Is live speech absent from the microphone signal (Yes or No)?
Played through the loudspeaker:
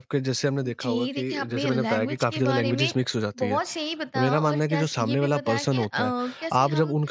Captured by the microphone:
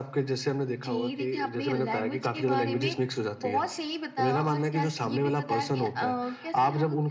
Yes